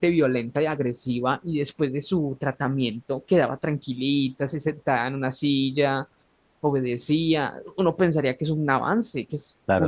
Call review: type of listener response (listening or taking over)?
taking over